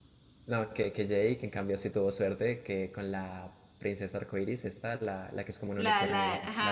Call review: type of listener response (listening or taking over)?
taking over